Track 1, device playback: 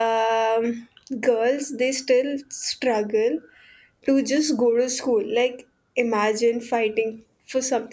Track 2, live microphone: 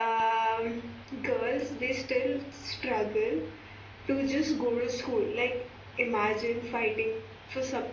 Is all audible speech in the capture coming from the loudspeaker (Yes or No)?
Yes